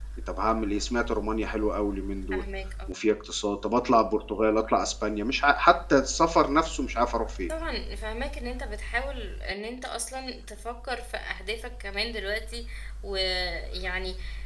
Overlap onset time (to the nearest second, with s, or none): none